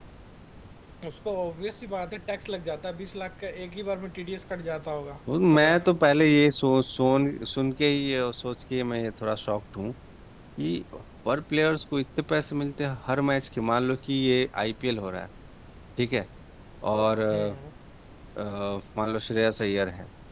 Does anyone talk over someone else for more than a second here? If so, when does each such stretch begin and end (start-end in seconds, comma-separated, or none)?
none